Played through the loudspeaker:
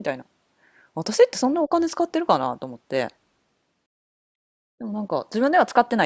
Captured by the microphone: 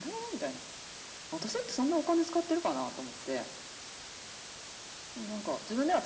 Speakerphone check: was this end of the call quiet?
Yes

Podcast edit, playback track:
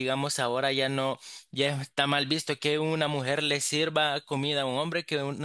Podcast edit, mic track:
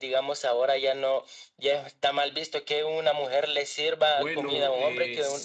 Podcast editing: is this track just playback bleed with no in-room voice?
No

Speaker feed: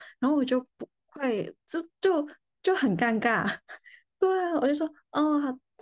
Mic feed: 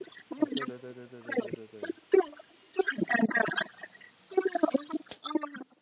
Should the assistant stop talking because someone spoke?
Yes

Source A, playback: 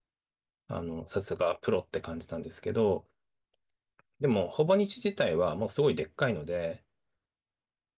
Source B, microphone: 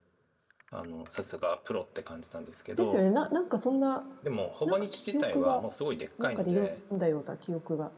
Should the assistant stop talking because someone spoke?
Yes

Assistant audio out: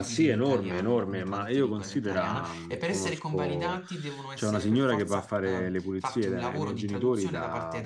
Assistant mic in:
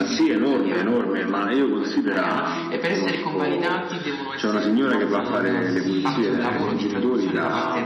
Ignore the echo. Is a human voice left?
Yes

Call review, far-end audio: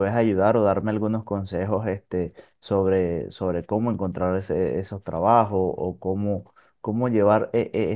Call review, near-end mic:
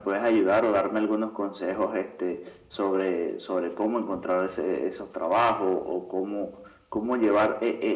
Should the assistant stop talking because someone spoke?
No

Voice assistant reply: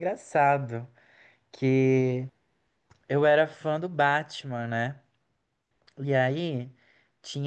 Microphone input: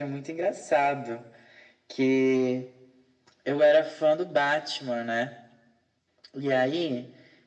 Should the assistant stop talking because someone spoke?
No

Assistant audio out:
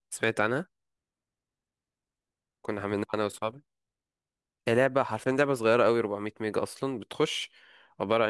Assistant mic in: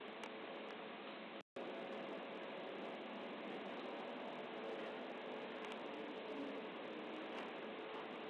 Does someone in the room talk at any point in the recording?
No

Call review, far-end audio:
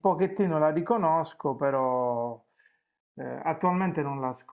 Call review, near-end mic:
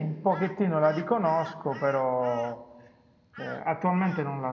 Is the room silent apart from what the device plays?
Yes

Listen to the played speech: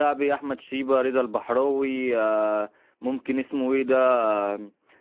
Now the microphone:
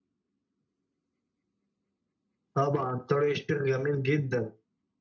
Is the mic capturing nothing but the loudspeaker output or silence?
No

